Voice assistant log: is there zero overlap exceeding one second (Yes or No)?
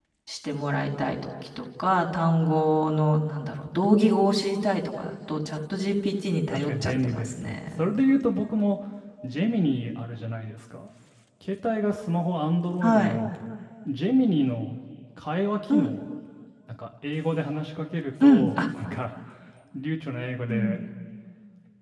No